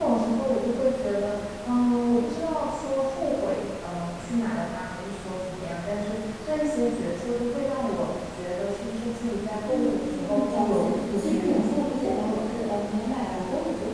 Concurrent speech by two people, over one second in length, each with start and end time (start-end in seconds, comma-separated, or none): 9.7-12.4